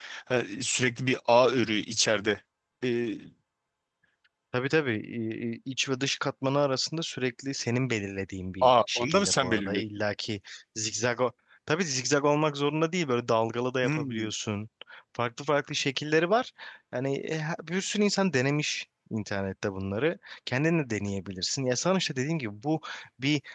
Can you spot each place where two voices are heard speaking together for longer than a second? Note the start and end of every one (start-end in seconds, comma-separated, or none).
8.6-9.8